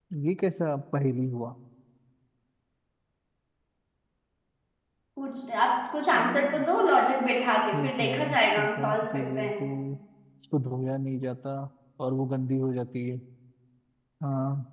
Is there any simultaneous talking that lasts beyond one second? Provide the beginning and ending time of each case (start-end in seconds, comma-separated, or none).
7.7-9.5